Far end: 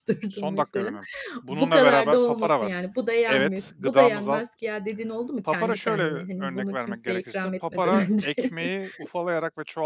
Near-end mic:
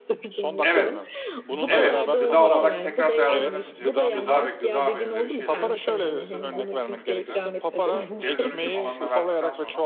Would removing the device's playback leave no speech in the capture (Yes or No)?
No